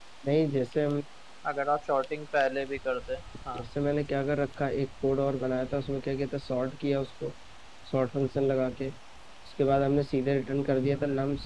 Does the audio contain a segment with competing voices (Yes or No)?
No